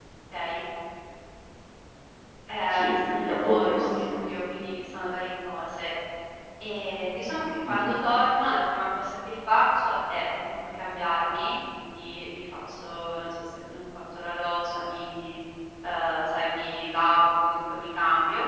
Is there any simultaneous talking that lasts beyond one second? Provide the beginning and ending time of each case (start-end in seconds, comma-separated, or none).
2.7-4.2